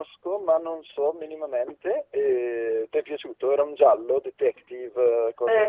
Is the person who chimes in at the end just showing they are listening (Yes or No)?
No